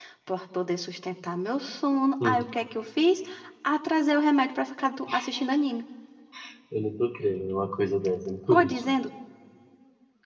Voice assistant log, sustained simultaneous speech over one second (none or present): none